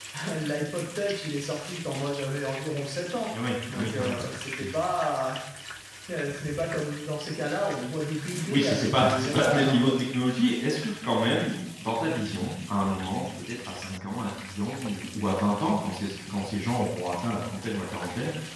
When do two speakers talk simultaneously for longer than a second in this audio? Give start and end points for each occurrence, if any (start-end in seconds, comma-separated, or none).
8.5-10.0